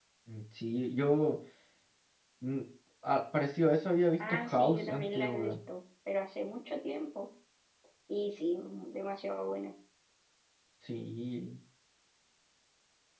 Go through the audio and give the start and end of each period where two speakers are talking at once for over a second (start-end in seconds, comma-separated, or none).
4.3-5.5